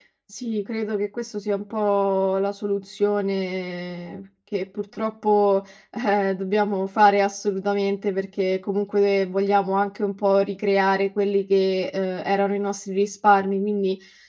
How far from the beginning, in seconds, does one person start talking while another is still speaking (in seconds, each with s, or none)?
none